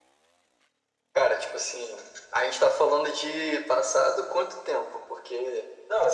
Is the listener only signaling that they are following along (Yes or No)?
No